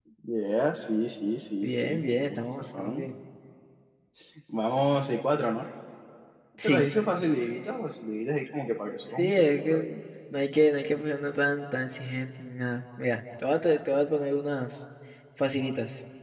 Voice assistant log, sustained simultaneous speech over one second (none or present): present